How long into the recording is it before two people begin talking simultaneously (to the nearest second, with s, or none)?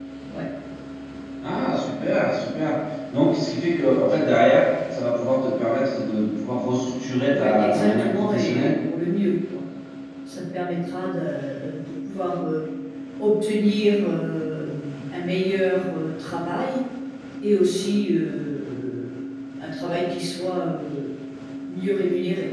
7 s